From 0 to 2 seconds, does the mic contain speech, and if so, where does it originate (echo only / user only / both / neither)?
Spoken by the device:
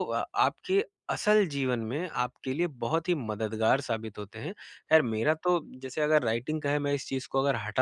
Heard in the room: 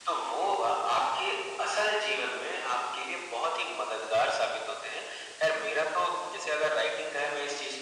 echo only